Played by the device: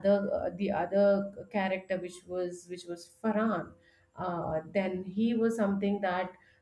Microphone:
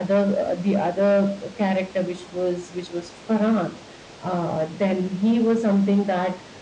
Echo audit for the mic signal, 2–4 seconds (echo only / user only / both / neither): echo only